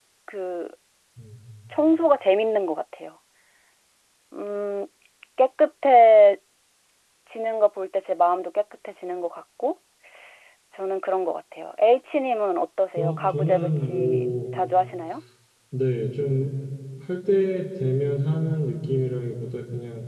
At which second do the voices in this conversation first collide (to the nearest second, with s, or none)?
13 s